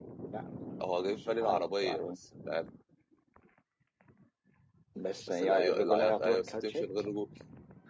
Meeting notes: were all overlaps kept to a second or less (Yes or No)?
No